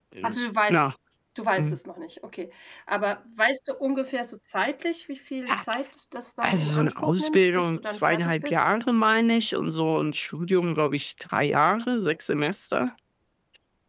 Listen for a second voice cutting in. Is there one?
Yes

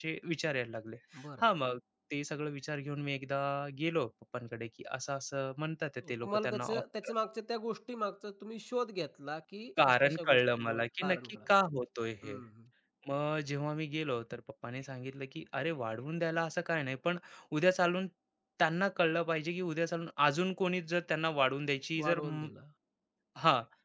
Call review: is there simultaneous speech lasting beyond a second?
Yes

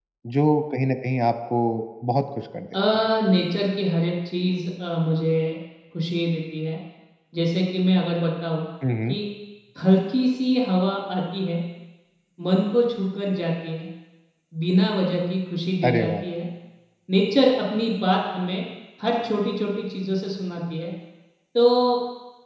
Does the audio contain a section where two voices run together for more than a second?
No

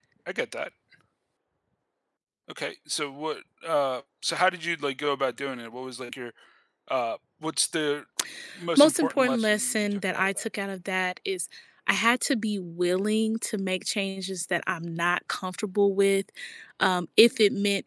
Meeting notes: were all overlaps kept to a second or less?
No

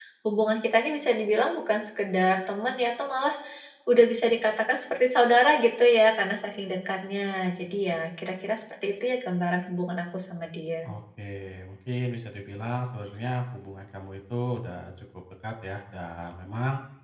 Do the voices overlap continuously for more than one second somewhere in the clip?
No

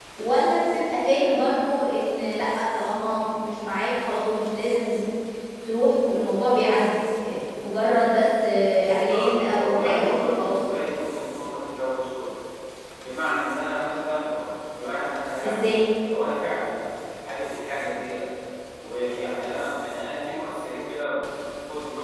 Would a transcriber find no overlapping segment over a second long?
No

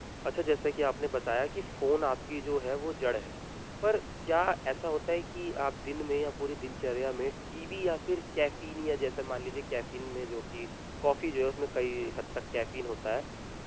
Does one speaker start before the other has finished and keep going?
No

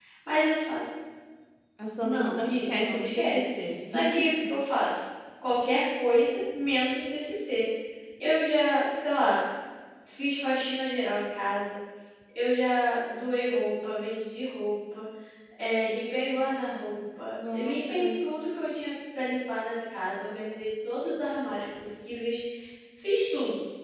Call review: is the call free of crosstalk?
No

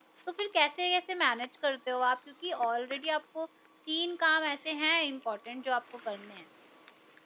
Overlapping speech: No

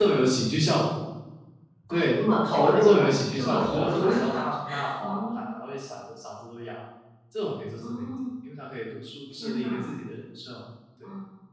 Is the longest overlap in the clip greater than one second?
Yes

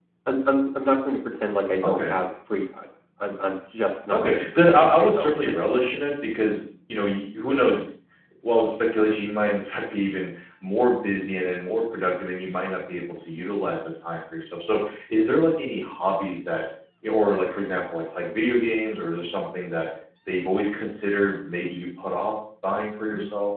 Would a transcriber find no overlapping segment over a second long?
No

